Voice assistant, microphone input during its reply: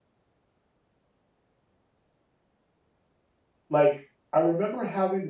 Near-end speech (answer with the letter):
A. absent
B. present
B